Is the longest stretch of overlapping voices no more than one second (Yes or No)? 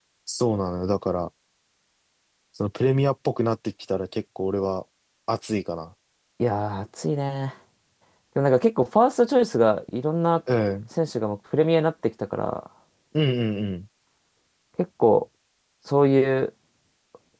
Yes